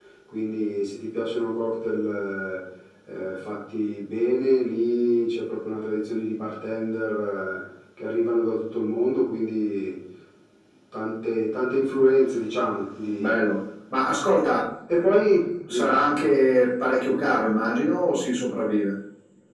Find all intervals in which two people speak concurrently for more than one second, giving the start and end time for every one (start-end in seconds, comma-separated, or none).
none